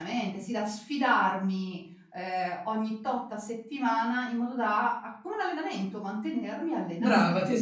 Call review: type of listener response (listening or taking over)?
taking over